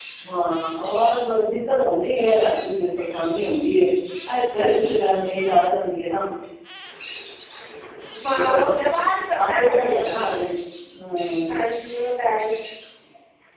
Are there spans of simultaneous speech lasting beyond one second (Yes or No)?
No